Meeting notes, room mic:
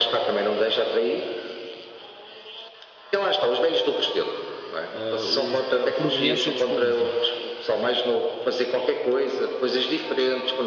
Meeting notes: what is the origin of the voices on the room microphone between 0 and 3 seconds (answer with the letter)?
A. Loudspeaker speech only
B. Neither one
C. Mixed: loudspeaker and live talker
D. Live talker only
A